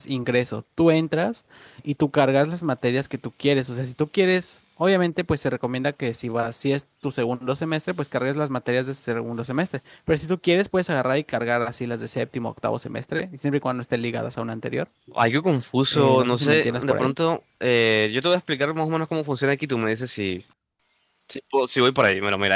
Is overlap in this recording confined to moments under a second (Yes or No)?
No